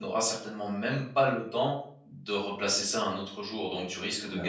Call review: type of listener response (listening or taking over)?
listening